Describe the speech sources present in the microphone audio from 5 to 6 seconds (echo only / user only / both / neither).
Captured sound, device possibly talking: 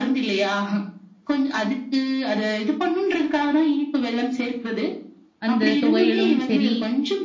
both